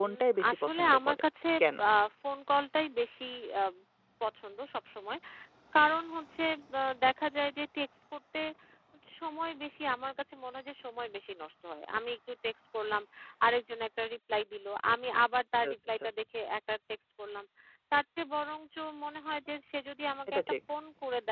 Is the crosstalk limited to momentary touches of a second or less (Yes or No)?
No